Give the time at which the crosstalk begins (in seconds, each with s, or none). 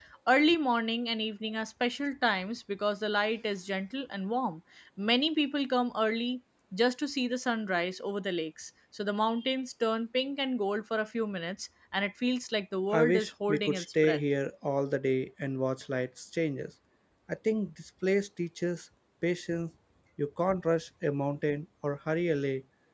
12.9 s